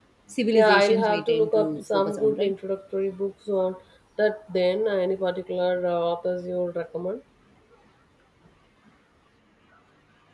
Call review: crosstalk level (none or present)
present